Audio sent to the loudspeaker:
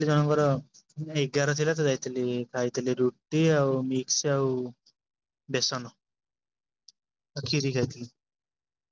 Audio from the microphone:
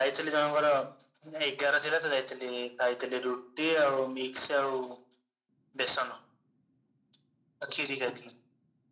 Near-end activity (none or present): none